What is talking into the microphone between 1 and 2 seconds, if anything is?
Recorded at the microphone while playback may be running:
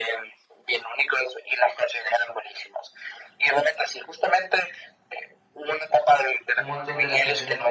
echo only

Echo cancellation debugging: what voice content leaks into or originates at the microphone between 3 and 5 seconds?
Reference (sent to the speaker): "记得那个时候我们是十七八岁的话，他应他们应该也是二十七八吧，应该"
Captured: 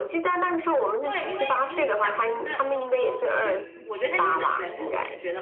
both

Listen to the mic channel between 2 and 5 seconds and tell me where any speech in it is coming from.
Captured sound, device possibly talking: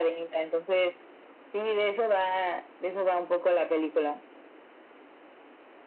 echo only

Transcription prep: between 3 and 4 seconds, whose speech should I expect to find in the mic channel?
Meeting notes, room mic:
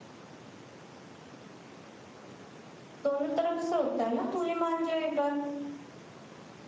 user only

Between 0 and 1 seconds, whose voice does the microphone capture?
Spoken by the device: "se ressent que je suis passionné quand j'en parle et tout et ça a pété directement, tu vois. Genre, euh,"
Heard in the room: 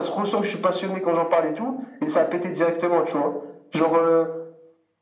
echo only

